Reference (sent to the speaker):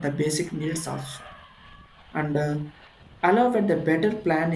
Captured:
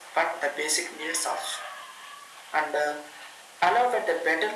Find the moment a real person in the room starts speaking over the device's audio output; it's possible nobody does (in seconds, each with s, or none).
none